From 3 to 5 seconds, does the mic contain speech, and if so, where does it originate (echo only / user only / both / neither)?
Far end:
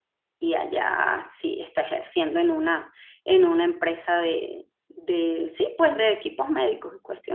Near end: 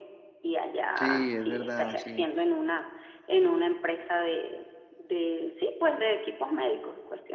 echo only